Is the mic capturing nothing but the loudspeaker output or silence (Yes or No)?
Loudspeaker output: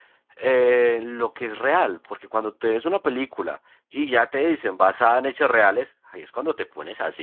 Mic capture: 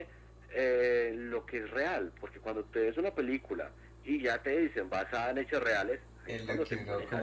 No